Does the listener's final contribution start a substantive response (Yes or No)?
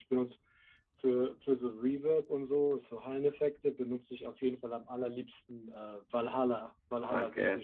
Yes